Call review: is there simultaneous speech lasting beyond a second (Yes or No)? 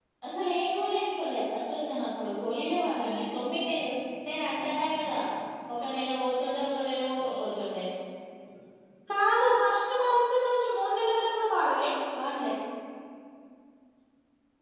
No